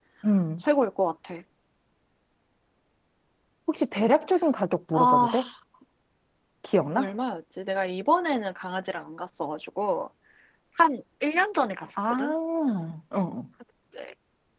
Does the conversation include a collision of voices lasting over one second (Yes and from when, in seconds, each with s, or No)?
No